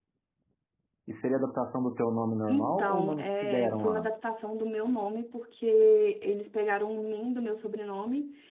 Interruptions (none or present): present